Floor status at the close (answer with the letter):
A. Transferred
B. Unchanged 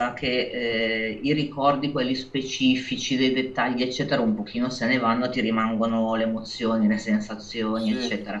B